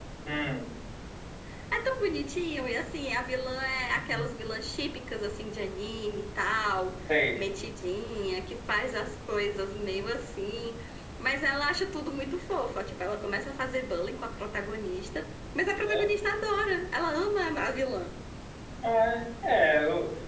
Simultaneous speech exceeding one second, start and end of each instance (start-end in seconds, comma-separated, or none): none